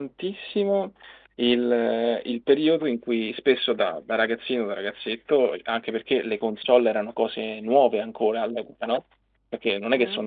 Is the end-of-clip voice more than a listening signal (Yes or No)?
No